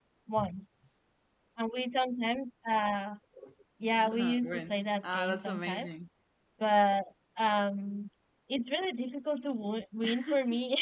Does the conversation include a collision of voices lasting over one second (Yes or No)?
Yes